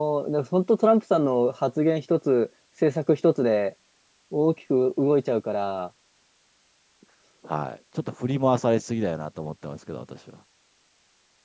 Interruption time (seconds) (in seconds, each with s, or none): none